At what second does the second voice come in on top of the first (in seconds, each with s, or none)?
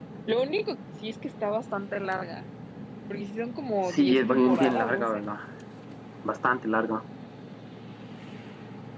3.9 s